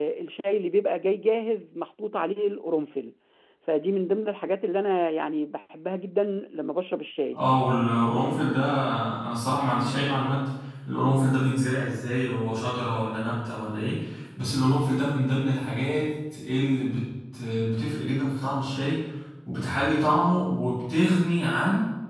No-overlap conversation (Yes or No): Yes